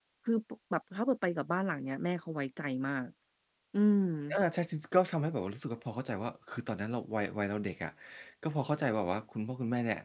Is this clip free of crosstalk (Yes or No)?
Yes